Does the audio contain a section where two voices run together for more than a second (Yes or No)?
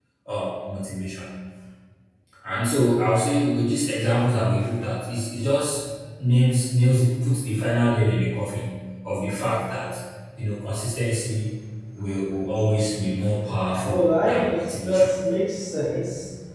Yes